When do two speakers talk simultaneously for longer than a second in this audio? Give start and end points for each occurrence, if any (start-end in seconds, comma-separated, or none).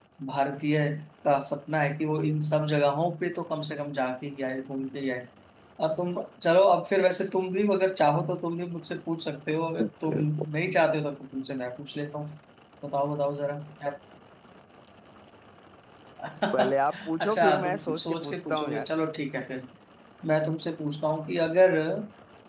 16.5-18.9